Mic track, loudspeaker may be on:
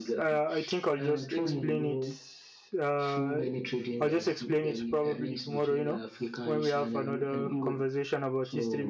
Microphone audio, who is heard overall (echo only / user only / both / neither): both